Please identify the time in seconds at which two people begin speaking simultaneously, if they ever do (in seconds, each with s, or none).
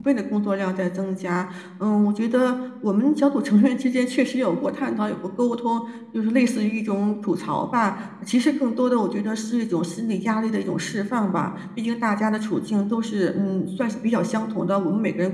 none